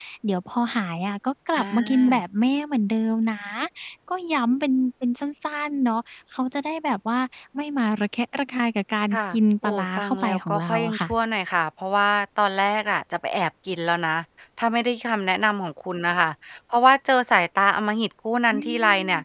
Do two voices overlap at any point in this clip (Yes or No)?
Yes